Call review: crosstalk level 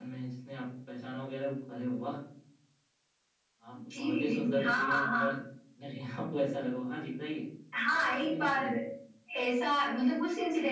present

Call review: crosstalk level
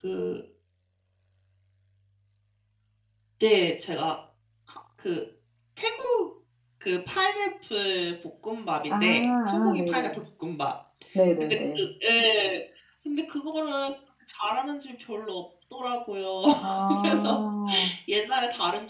present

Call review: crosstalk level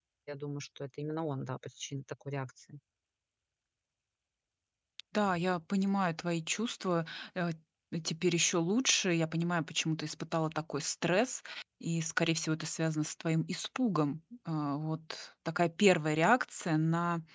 none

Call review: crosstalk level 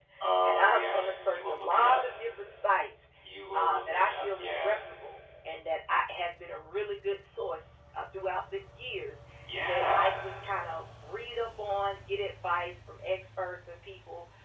present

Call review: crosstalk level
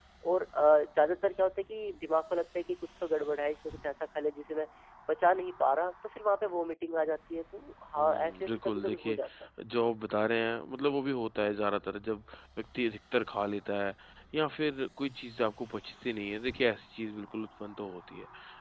present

